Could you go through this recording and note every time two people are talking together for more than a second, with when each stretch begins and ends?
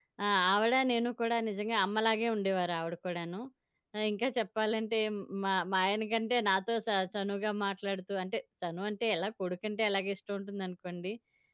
none

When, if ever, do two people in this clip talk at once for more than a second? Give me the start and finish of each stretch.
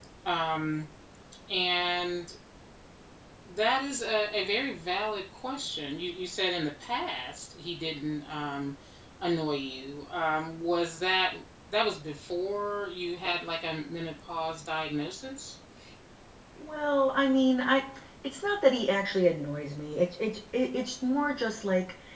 none

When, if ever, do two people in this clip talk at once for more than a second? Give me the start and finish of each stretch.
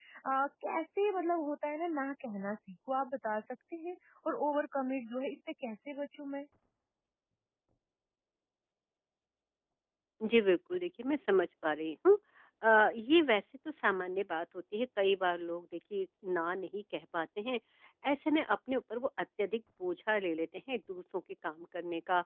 none

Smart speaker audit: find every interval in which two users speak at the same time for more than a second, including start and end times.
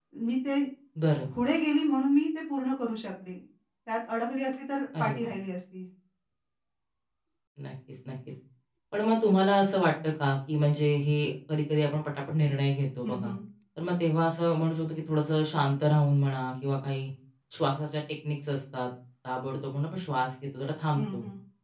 none

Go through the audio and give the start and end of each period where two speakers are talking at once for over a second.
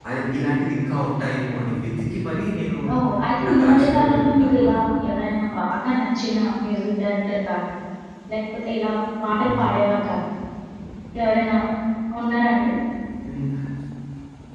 3.5-4.8

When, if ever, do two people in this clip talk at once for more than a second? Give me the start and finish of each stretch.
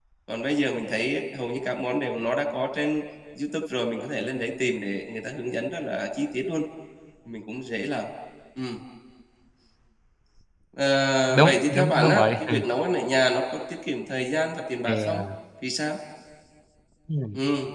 11.3-12.6

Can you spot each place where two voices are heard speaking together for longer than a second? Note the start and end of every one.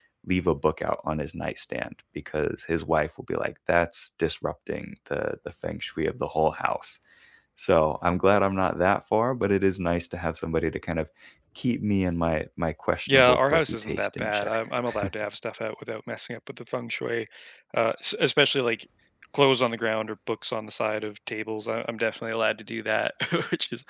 13.1-14.6

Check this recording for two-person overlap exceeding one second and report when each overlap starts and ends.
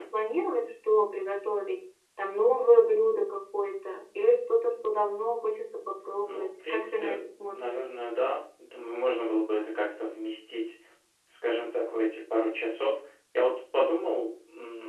6.2-7.7

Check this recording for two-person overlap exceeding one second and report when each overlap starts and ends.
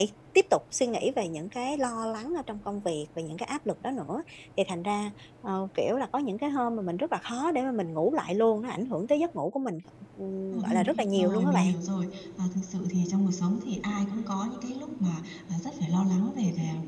10.5-11.7

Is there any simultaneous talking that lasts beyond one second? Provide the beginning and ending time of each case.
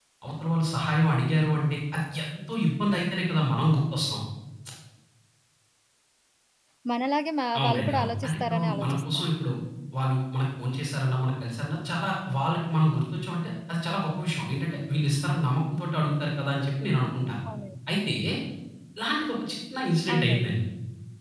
7.6-9.3

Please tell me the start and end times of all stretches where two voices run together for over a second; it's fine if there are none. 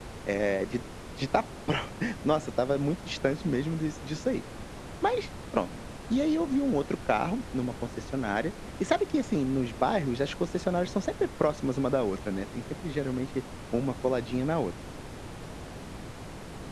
none

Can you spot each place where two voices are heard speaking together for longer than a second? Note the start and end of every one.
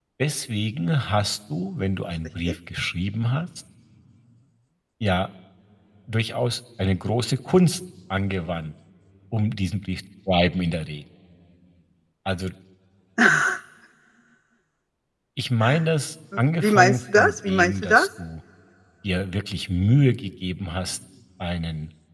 16.6-18.1

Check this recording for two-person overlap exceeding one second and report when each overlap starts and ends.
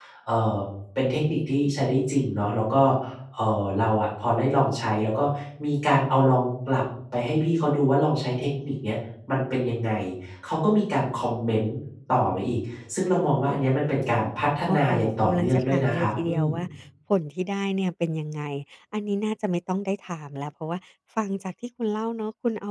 14.7-16.5

